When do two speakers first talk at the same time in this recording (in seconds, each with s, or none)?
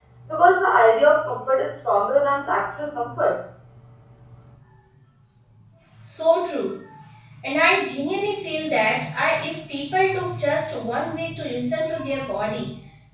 none